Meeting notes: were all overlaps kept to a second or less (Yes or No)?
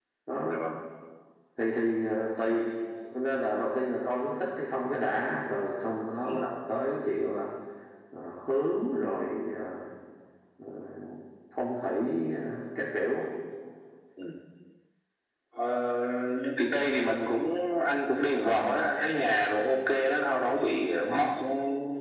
Yes